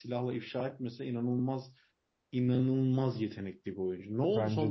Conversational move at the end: taking over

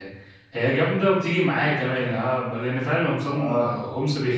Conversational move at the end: listening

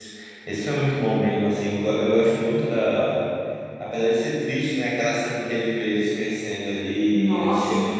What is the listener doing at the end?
listening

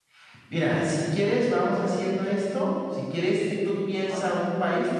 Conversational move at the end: listening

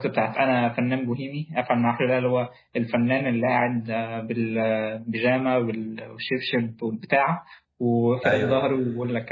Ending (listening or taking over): listening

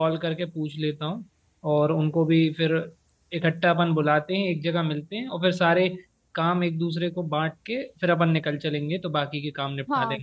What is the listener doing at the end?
taking over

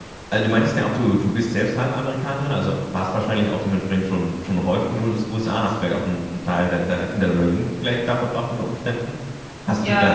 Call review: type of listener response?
listening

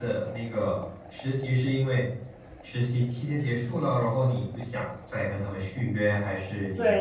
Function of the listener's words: taking over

